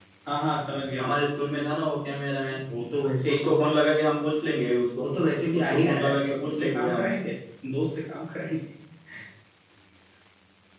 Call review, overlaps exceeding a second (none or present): present